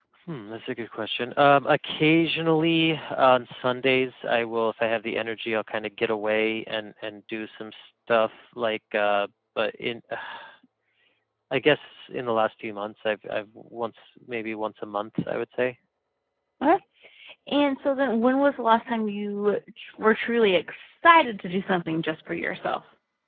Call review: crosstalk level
none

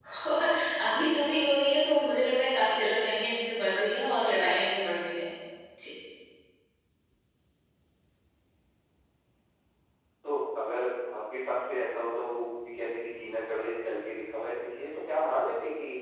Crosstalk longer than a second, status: none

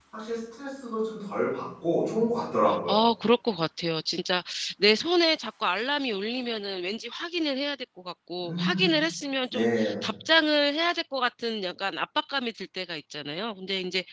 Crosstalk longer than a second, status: none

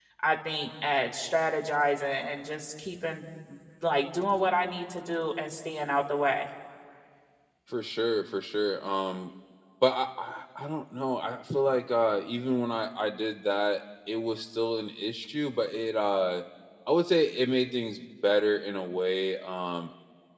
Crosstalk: none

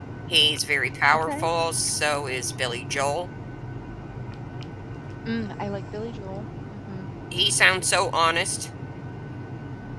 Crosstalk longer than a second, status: none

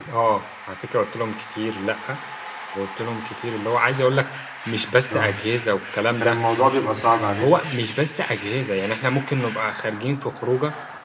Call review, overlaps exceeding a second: none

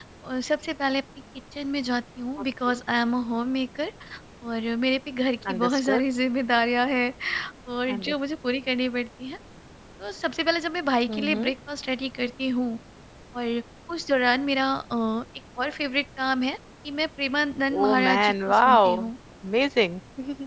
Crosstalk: present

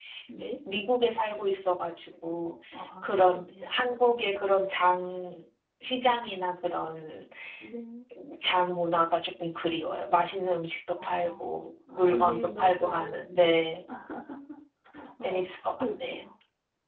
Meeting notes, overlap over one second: present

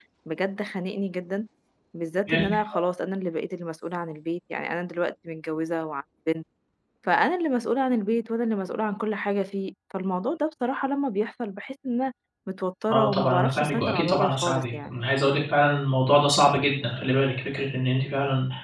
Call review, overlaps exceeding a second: present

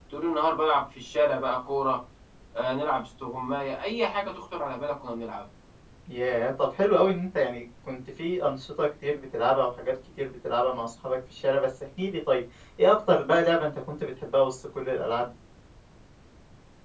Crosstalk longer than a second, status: none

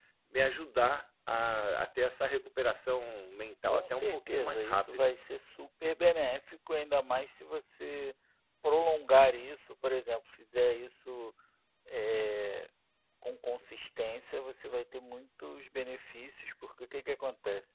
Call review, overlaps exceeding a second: present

